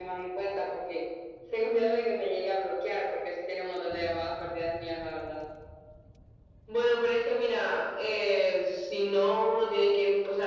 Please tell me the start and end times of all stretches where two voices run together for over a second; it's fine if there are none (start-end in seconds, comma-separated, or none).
none